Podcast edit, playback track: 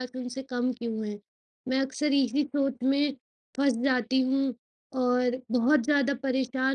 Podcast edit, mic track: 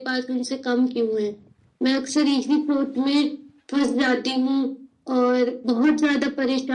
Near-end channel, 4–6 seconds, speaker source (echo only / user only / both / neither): echo only